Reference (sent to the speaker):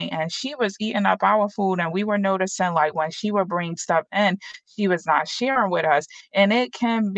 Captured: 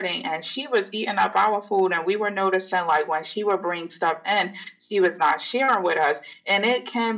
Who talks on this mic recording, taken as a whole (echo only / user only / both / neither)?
echo only